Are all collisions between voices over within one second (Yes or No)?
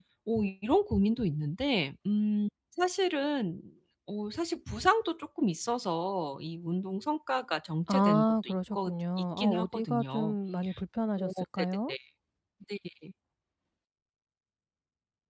No